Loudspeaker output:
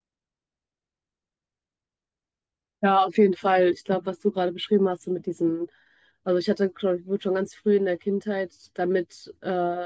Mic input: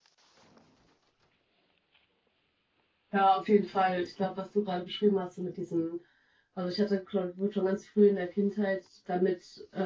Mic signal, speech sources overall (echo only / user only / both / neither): echo only